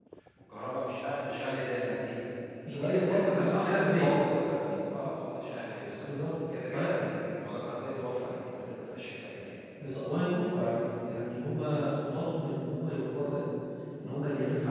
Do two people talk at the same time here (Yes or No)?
Yes